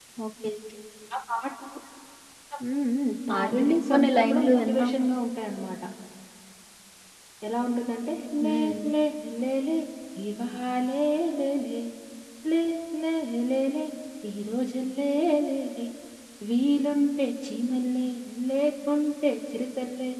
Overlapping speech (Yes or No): Yes